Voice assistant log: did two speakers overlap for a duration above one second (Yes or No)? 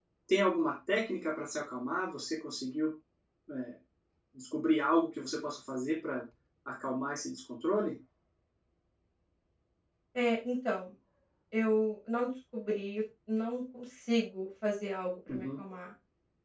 No